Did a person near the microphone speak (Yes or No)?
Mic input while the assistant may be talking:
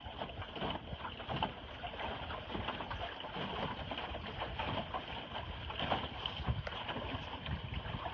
No